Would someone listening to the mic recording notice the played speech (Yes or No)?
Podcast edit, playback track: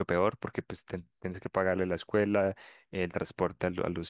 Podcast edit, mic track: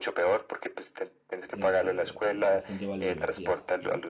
Yes